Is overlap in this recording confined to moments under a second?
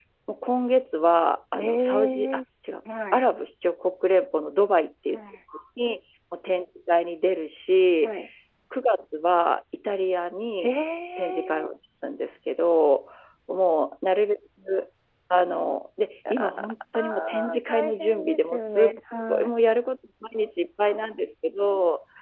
No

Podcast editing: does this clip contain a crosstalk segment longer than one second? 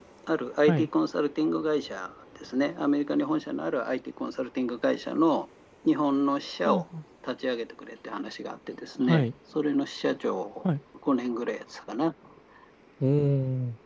No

